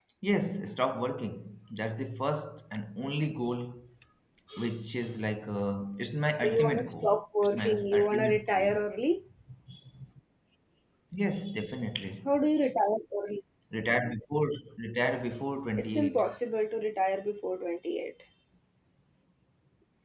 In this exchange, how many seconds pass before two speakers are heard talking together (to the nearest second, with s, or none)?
6 s